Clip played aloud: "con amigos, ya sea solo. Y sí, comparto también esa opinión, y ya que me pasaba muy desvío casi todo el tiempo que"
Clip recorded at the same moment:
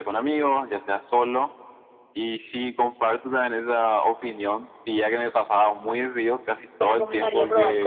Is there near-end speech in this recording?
Yes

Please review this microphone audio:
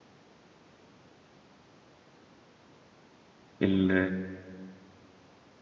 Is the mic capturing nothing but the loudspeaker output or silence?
No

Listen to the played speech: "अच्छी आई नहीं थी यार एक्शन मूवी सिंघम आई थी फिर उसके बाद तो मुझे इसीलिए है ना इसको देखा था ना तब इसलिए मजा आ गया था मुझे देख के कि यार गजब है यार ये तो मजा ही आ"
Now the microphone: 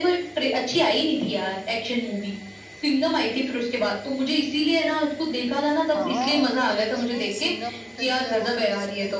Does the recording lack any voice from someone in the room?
No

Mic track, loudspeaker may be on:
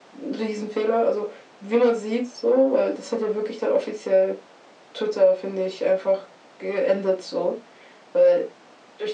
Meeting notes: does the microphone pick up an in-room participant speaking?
No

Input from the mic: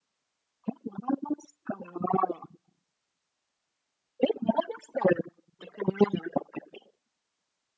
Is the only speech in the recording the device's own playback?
Yes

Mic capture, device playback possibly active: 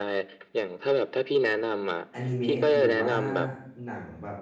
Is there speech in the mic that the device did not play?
Yes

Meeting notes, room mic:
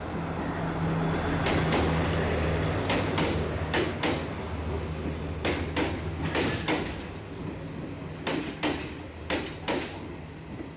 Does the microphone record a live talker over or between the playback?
No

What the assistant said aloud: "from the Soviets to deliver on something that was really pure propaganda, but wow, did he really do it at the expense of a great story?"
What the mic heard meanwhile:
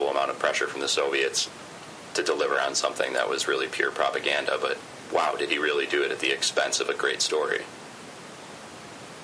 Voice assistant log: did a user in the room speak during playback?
No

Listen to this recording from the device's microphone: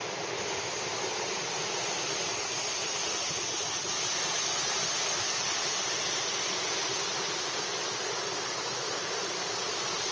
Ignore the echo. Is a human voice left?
No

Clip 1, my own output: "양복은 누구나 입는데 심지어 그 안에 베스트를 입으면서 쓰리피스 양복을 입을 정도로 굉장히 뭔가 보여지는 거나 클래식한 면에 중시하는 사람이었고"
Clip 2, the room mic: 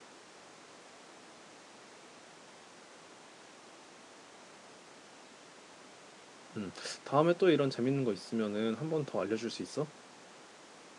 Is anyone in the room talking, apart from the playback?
Yes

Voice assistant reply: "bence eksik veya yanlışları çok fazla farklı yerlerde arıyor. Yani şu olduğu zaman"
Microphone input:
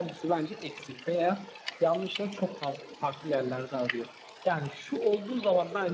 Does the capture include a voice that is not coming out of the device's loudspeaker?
No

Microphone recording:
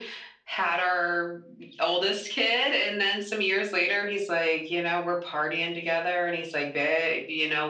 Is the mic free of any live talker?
Yes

